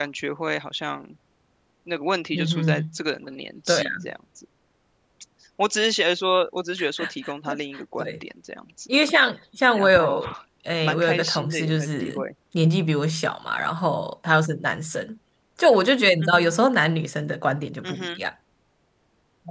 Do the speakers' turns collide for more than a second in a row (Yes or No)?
Yes